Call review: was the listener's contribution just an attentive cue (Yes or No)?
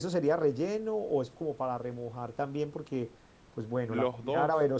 Yes